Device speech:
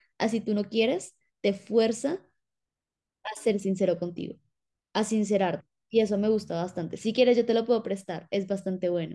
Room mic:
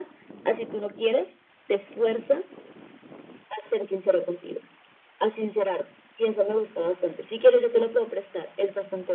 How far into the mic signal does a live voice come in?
none

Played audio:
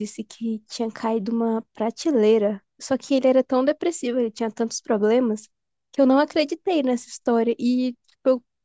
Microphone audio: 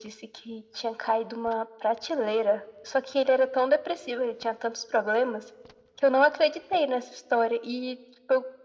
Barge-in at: none

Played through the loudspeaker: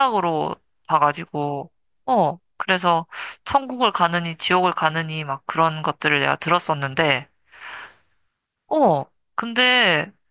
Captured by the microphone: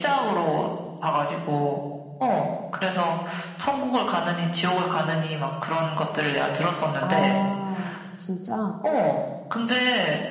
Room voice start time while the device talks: 7.0 s

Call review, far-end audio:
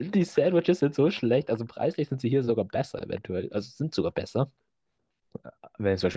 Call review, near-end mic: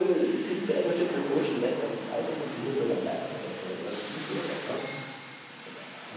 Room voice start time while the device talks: none

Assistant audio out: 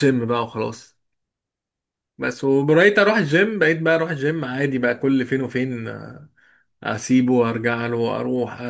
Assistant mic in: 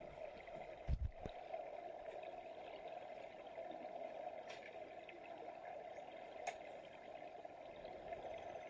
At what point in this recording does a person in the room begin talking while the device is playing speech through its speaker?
none

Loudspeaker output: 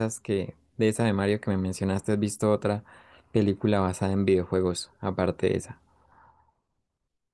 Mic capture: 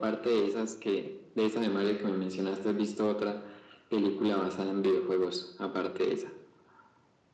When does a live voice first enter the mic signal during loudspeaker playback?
none

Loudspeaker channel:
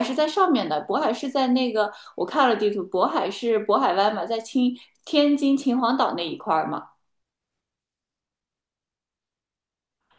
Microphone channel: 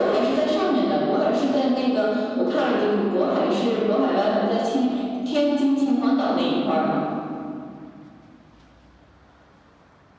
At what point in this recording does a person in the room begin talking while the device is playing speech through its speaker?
none

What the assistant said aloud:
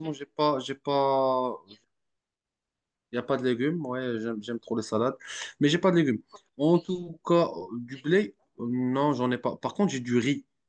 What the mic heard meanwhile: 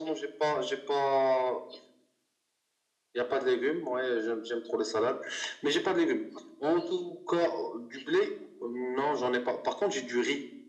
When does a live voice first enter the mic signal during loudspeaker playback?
none

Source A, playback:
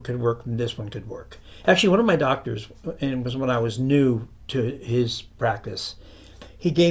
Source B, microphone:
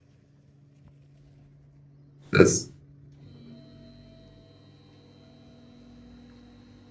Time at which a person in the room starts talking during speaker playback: 2.3 s

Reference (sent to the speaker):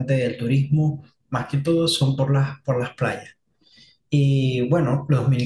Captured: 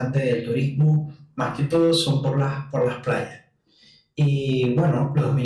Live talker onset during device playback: none

